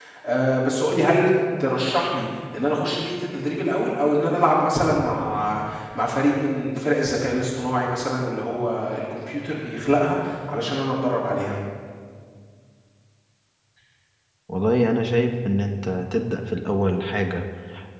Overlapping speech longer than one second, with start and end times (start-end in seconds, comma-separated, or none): none